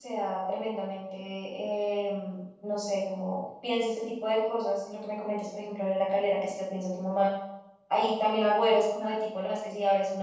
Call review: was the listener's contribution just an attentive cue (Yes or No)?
Yes